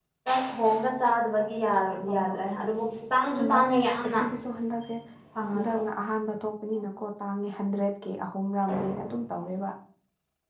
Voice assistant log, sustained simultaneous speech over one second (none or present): none